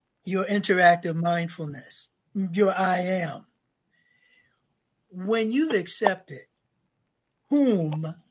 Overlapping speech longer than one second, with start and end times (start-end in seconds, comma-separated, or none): none